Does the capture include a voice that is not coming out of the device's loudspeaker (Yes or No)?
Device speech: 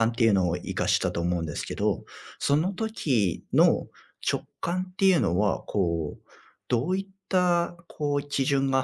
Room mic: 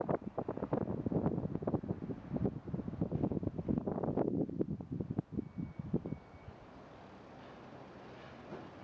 No